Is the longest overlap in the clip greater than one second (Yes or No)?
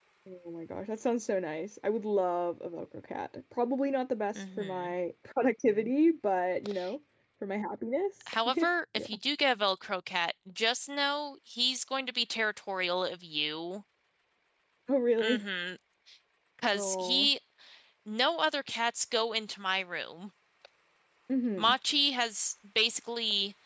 No